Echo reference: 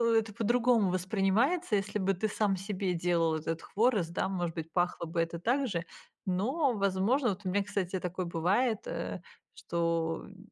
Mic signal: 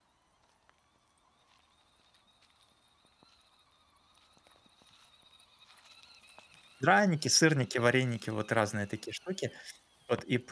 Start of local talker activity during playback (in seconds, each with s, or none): 6.8 s